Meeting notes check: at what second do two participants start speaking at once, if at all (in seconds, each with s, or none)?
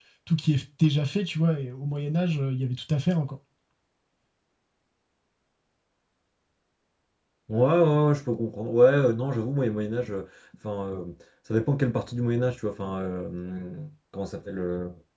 none